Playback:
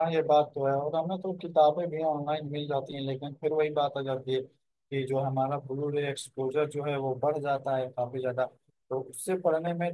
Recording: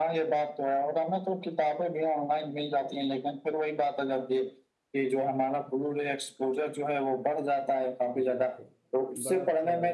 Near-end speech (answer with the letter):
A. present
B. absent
A